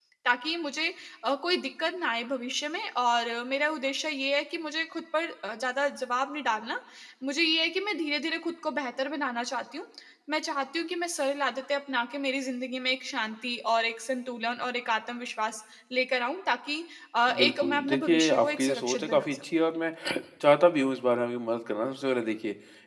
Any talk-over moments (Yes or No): Yes